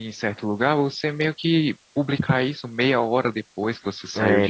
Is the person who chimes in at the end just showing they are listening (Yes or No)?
No